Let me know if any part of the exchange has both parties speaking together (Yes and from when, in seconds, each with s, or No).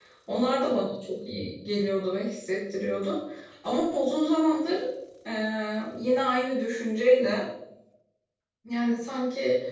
No